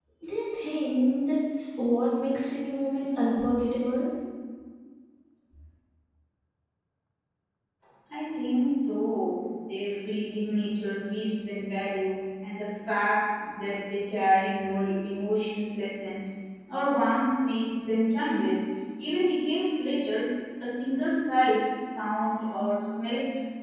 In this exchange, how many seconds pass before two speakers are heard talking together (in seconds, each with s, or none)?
none